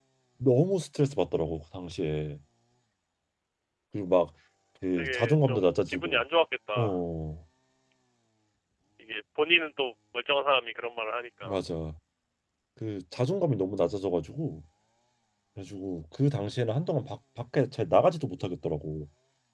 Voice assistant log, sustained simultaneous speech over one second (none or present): present